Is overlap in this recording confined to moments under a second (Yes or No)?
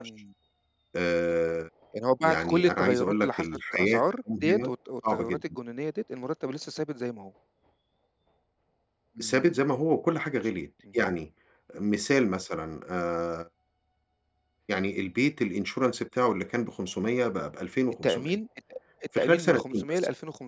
No